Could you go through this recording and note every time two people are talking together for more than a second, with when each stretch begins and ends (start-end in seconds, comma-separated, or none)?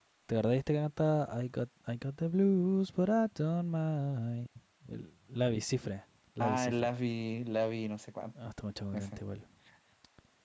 none